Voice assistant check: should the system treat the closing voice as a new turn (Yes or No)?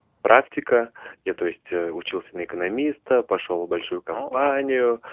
No